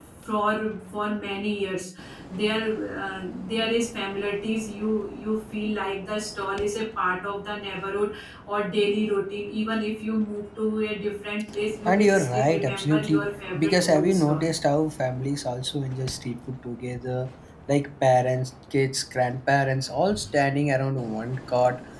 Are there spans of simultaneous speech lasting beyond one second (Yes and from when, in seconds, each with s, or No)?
Yes, from 11.8 s